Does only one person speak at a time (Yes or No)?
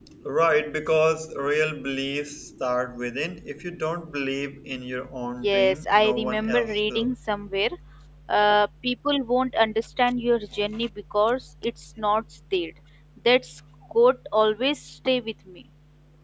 No